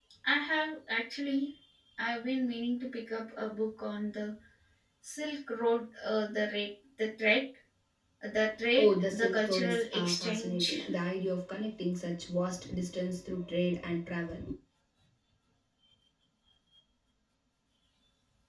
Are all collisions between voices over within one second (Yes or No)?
No